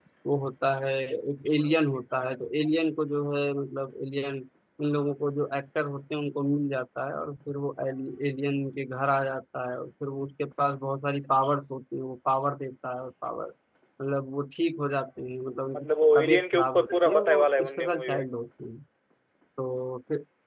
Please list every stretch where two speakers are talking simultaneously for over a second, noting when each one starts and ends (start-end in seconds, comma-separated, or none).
15.8-18.2